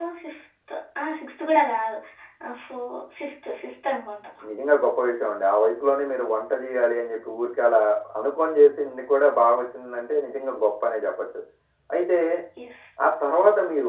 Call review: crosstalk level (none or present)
none